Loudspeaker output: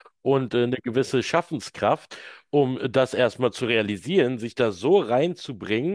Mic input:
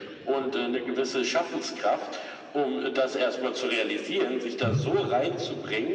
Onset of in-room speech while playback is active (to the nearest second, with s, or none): 5 s